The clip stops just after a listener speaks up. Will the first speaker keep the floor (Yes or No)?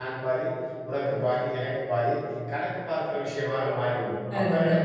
Yes